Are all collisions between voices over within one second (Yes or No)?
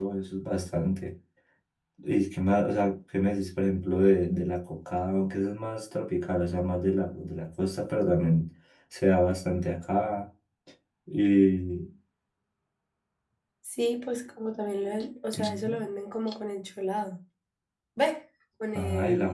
Yes